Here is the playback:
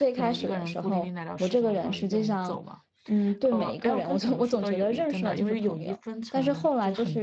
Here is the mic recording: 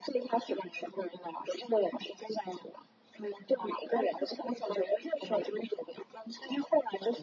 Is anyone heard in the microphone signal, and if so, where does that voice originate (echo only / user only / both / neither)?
echo only